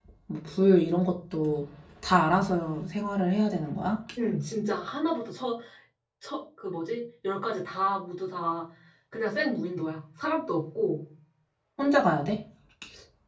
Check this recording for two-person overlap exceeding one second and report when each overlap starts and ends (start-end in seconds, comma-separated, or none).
none